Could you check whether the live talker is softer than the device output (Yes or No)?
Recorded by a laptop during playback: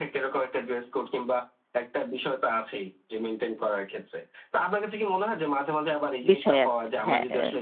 No